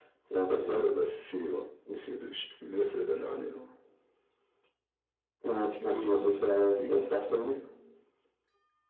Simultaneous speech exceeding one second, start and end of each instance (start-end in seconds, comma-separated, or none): 5.8-7.6